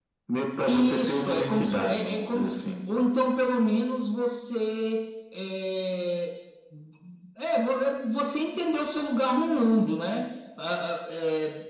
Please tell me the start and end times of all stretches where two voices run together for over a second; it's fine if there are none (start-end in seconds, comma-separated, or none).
0.7-2.6